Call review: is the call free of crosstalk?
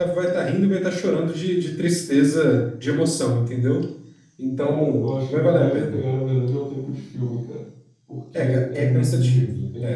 No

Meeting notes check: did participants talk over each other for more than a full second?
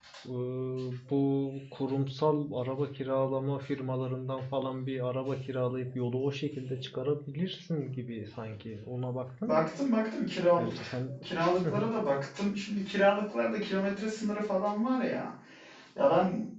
No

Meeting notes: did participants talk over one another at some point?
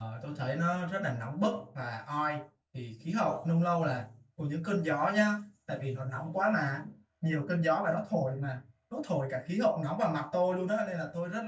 No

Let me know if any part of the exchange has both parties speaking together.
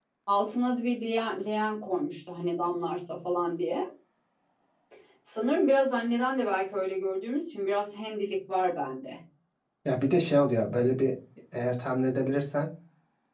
No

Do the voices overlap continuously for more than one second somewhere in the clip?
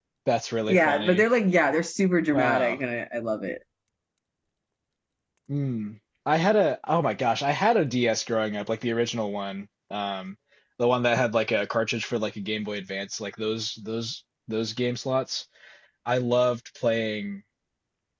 No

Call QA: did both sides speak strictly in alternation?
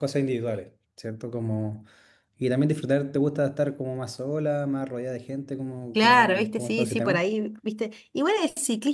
No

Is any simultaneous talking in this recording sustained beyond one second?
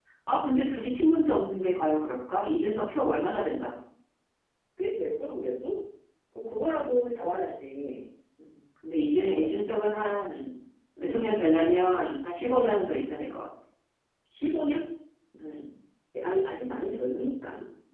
No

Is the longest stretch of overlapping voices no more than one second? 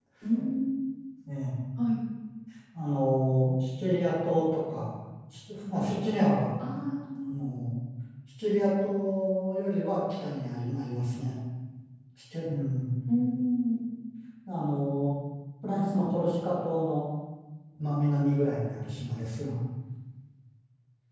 Yes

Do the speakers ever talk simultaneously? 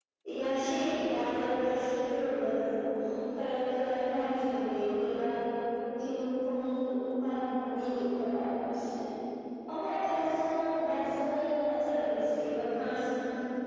No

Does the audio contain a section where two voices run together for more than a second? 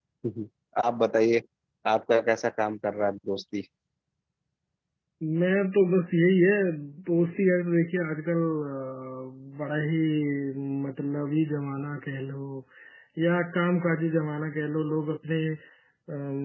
No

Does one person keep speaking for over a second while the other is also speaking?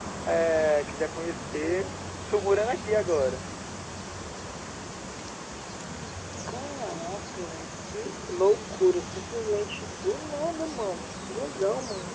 No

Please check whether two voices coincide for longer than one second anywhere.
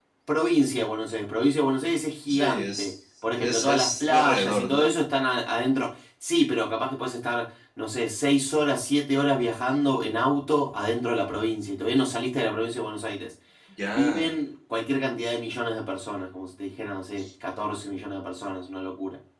Yes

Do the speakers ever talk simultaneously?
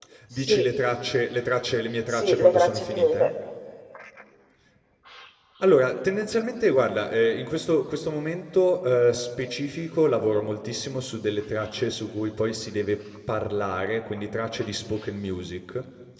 Yes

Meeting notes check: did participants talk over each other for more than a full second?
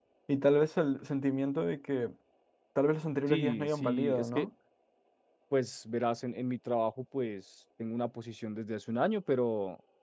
Yes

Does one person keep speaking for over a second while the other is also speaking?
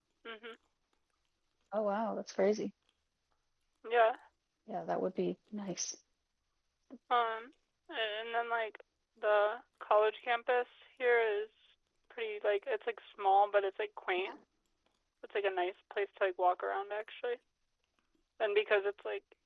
No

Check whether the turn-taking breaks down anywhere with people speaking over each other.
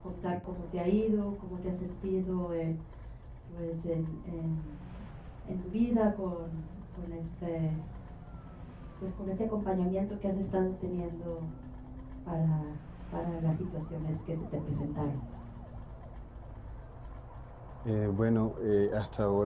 No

